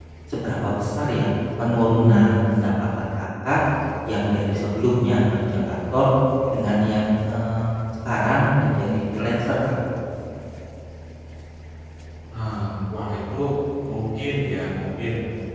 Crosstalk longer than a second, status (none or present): none